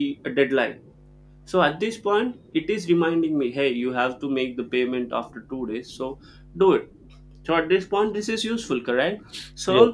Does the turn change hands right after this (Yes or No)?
No